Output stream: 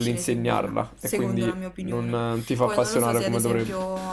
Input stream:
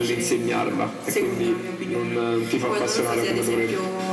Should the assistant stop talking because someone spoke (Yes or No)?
No